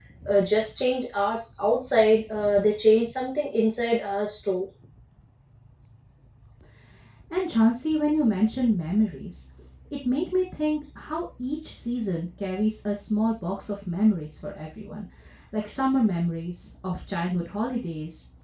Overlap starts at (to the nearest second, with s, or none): none